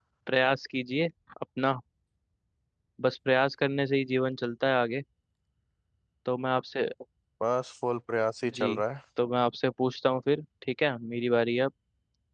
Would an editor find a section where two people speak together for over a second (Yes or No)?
No